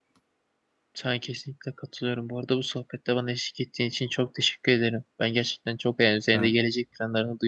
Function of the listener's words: listening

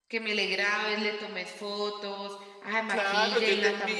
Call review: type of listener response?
taking over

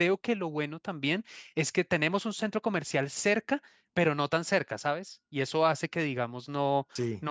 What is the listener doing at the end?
listening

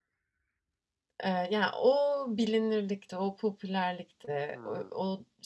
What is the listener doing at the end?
listening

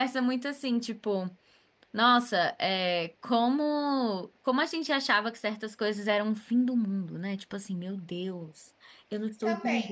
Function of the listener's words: taking over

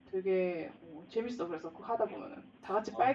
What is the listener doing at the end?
taking over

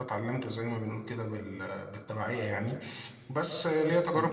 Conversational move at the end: listening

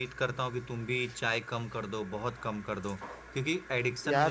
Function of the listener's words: listening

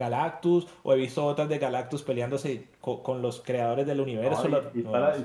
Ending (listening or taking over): taking over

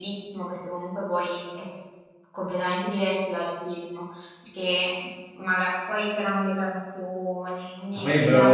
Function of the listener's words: taking over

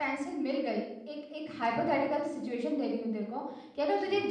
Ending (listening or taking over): listening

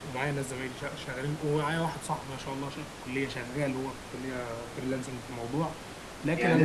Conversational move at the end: taking over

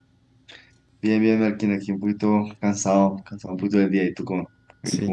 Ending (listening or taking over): taking over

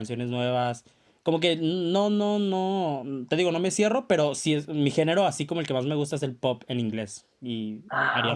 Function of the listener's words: taking over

